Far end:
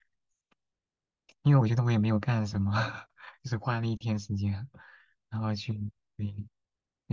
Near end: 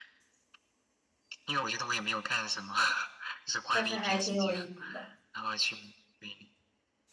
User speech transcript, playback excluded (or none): 但是还挺有意思的。